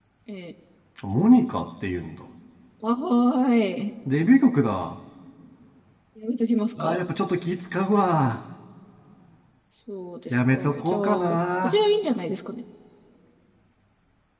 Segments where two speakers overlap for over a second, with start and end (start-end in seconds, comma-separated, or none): 10.3-11.8